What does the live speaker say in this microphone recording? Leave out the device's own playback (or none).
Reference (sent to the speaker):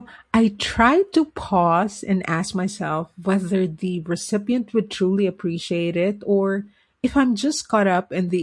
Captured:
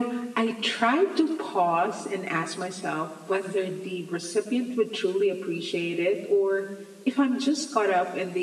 none